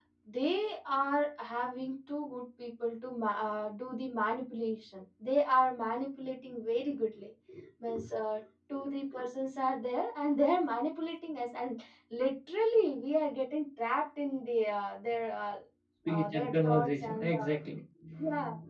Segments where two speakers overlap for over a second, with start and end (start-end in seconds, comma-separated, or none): 16.1-17.5